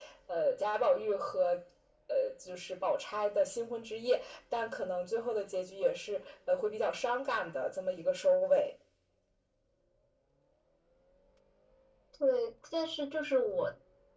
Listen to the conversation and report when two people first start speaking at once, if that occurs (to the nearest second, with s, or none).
none